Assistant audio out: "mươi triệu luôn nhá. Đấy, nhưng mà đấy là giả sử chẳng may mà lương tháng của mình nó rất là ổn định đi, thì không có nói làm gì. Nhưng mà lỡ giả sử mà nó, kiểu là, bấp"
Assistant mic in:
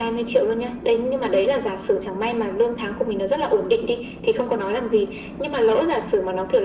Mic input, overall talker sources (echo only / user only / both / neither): echo only